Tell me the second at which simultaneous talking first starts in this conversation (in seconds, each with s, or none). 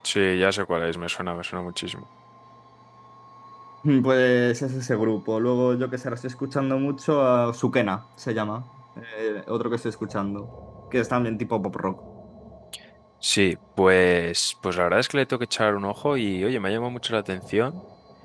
none